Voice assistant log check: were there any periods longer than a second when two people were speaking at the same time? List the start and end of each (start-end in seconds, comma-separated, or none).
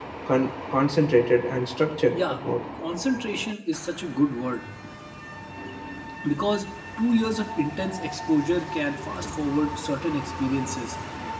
none